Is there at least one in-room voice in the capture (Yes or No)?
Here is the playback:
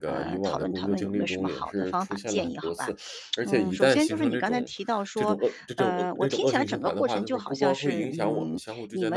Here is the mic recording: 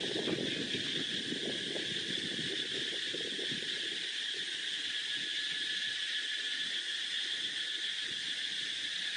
No